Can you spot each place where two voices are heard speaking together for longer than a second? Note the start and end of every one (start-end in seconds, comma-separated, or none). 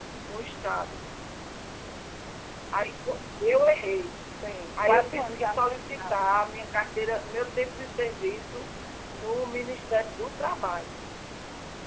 4.8-6.2